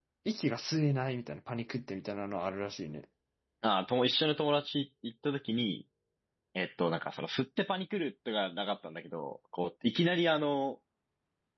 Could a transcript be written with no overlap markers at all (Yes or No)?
Yes